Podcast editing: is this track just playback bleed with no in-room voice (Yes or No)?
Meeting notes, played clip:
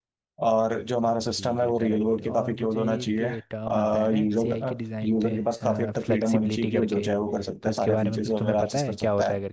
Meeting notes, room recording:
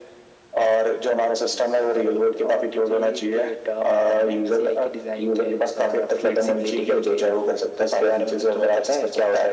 Yes